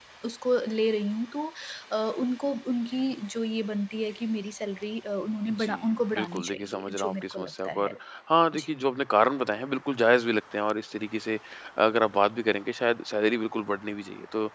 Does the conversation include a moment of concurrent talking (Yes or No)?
Yes